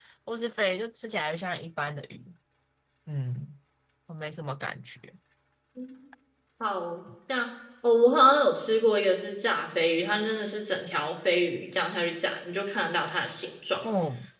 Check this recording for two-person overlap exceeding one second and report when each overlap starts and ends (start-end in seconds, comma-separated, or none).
none